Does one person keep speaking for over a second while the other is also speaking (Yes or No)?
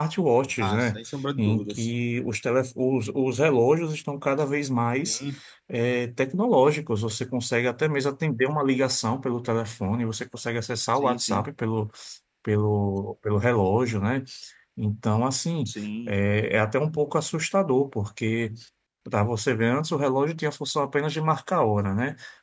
No